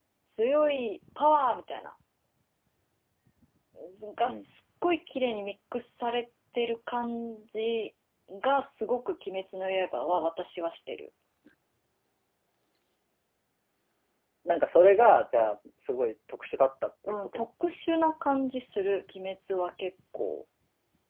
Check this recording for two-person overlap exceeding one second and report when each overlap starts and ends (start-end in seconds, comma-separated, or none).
none